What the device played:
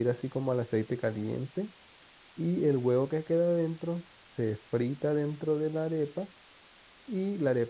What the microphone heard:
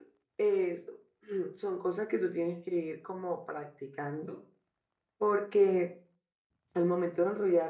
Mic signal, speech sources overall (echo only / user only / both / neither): user only